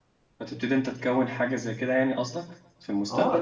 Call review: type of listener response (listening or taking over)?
taking over